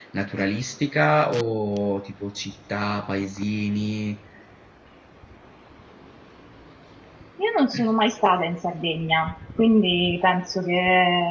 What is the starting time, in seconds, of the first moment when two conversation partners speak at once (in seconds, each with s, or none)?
none